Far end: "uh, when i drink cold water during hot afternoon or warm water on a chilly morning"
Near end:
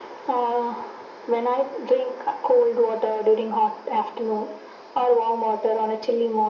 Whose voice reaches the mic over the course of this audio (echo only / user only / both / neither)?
echo only